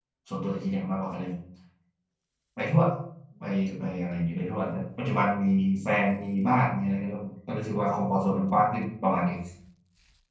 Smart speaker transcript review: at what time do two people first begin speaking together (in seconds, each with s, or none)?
none